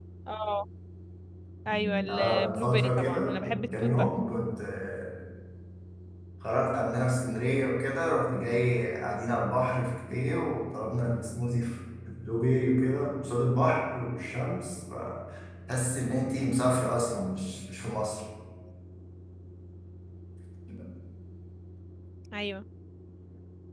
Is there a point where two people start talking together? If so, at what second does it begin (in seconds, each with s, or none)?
1.7 s